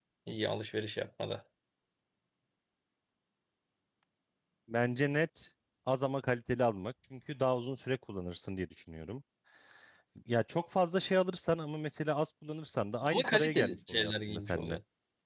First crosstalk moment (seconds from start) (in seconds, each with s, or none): 13.0 s